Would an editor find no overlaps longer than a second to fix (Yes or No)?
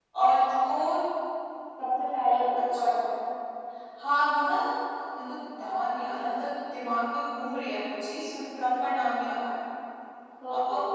Yes